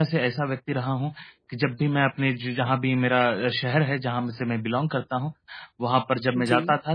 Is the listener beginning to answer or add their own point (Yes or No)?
No